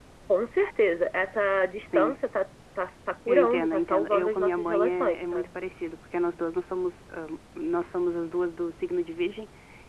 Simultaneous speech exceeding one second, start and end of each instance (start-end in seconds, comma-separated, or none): 3.3-5.5